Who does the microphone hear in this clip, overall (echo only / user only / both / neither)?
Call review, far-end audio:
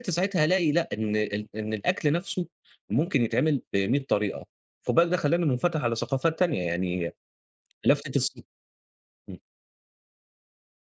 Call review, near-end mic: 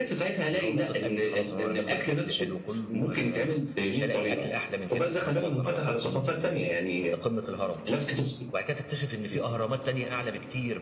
both